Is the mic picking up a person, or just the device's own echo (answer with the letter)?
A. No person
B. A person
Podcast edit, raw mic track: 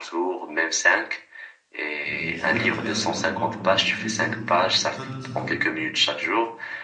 B